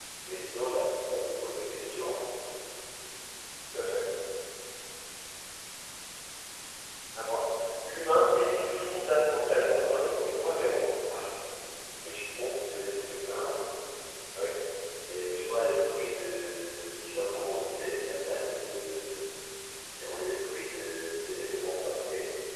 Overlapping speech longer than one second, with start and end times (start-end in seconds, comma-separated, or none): 9.5-10.8